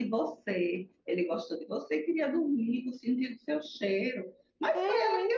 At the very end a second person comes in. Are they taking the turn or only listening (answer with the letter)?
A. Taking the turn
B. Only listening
B